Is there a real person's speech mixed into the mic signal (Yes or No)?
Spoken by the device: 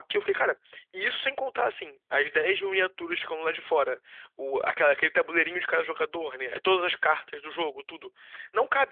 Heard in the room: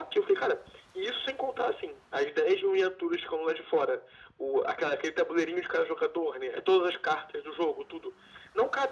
No